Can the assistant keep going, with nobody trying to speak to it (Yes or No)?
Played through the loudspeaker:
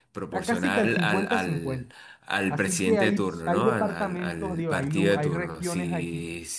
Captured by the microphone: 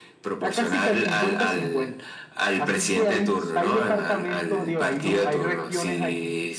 Yes